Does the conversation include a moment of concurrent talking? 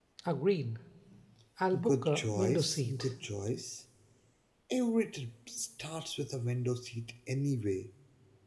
Yes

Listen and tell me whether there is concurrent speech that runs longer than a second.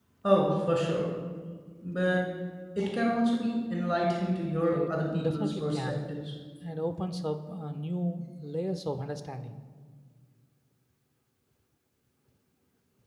Yes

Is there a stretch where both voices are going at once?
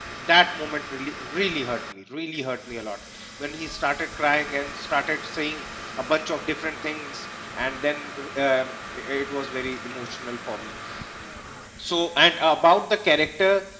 No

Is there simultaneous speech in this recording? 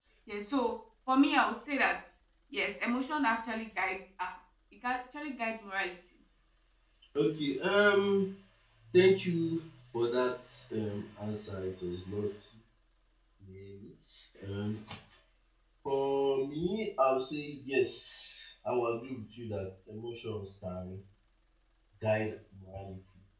No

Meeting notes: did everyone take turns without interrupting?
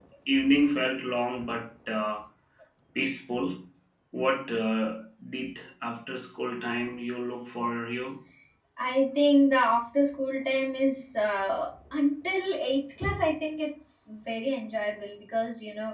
Yes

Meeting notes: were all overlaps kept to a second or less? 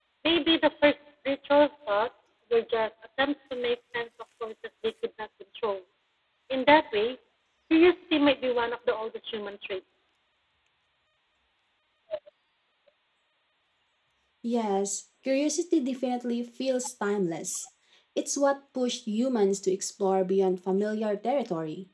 Yes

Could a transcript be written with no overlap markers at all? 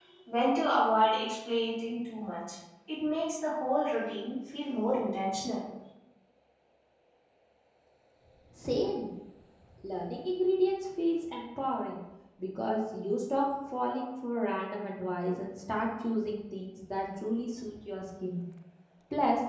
Yes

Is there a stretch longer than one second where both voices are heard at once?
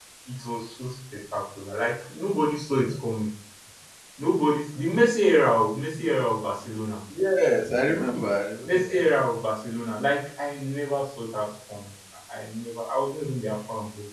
No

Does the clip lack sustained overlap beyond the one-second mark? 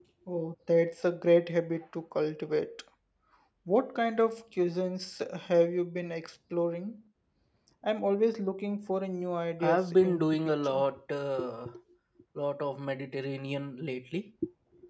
No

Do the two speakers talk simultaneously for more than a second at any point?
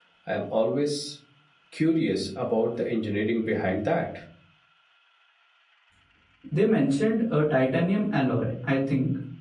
No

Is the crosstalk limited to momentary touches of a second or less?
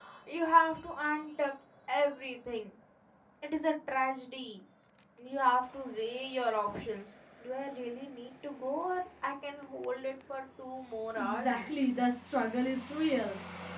Yes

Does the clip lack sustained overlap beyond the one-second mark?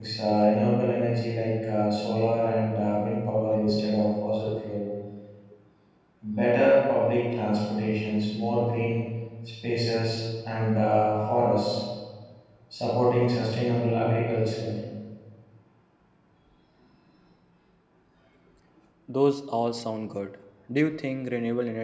Yes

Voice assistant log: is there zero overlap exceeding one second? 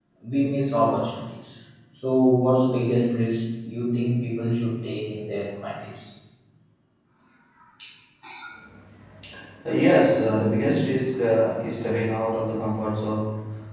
Yes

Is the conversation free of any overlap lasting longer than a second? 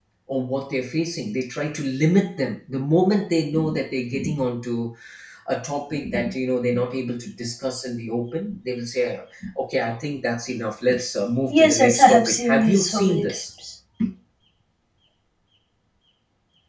No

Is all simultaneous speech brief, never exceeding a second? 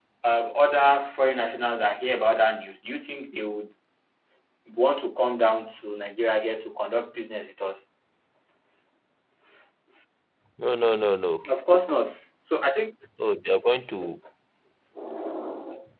Yes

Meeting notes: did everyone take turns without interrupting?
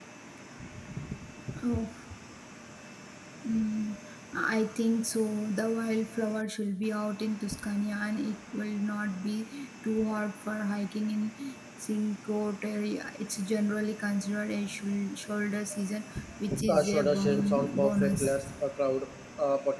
No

